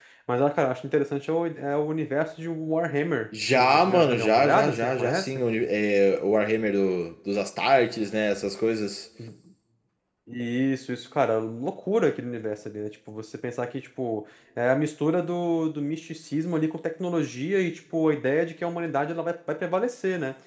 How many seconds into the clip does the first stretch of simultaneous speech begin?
3.3 s

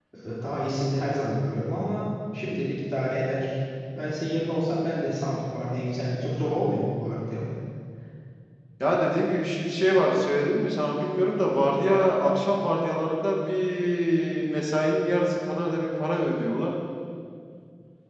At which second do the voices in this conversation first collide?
none

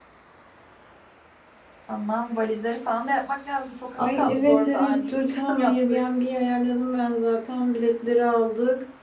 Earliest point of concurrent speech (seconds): 4.0 s

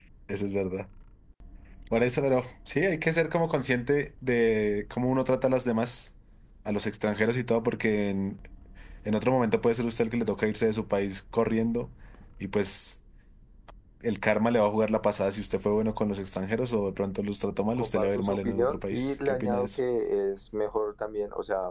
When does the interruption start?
17.8 s

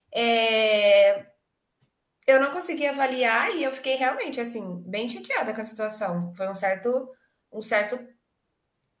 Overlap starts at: none

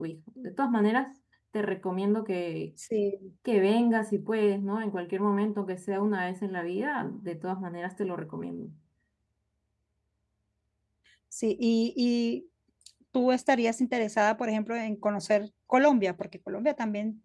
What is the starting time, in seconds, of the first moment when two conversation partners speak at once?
none

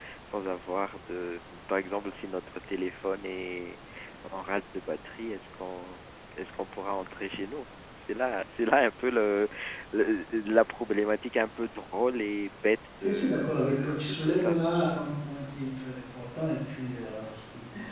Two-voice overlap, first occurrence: 13.0 s

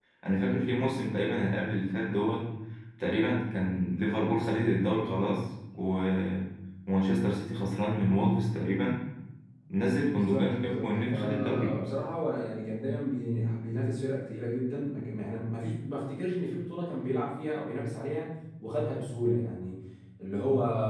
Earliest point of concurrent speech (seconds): 10.1 s

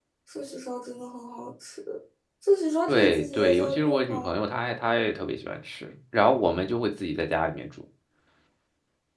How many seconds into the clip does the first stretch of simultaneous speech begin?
2.9 s

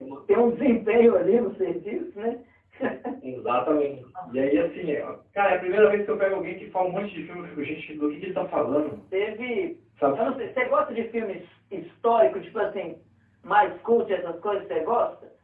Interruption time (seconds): none

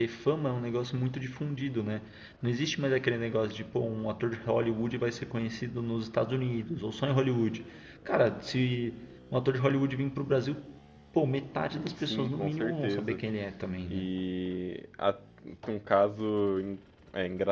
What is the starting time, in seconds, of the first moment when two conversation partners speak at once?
12.0 s

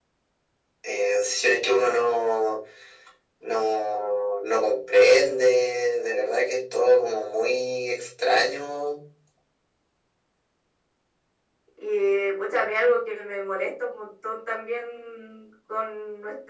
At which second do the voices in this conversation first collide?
none

